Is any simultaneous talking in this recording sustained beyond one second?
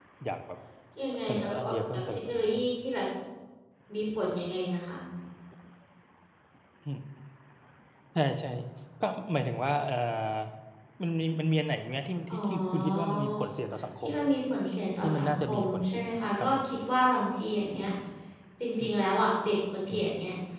Yes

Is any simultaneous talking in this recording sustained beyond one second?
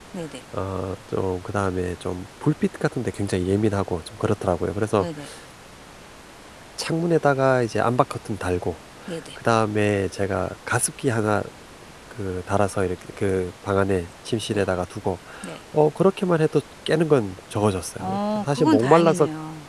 Yes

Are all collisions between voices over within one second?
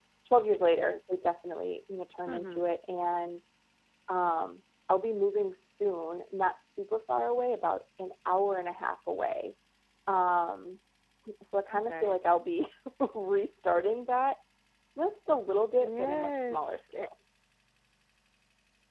No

